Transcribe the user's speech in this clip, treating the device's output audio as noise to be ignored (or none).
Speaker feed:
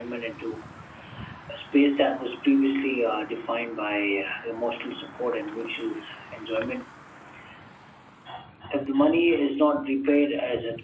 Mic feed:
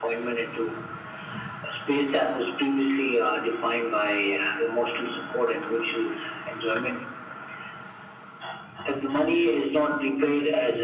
none